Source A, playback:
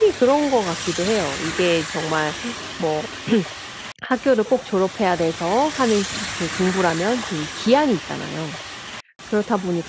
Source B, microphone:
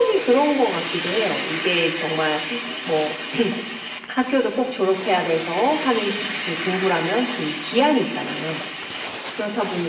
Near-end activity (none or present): none